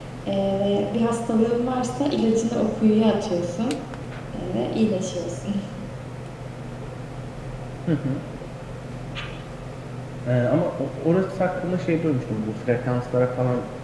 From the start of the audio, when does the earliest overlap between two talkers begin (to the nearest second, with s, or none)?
none